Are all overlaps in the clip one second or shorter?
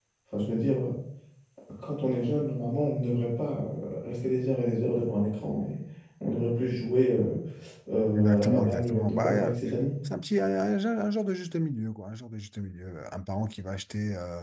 No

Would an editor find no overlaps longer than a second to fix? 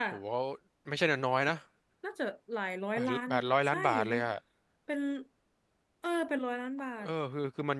No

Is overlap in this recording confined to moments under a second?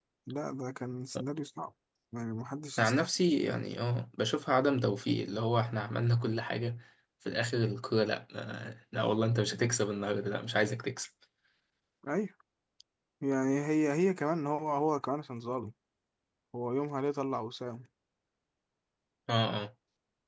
Yes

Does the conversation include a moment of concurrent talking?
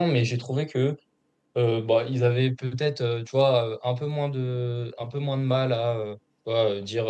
No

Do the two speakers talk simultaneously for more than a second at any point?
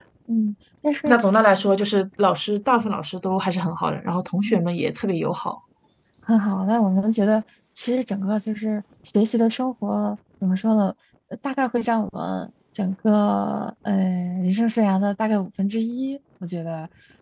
No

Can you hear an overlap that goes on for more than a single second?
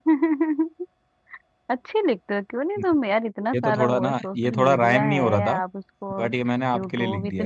Yes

